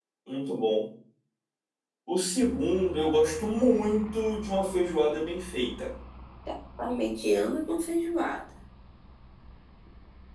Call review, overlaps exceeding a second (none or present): none